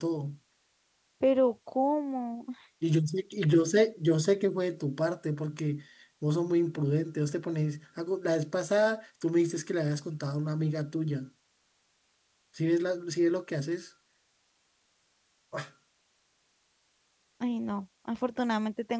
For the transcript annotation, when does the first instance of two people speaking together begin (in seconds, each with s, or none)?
none